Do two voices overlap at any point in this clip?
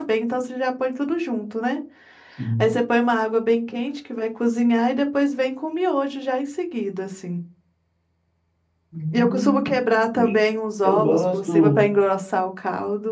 Yes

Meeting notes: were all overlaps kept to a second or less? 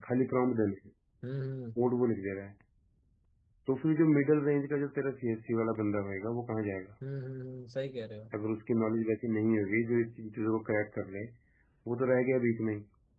Yes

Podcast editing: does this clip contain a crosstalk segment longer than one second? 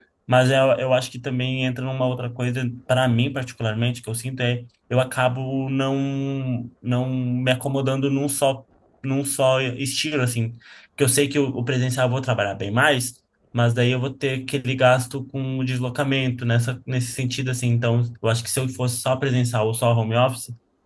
No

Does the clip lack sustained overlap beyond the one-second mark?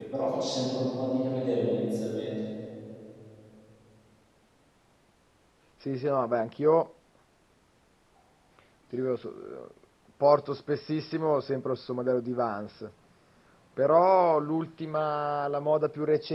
Yes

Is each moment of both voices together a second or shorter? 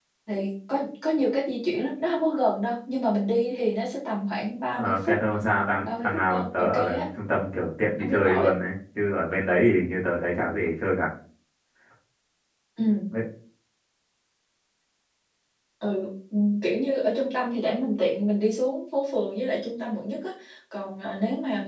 No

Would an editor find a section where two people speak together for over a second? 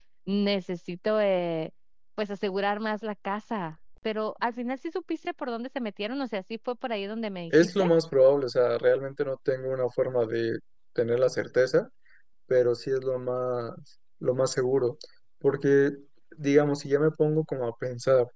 No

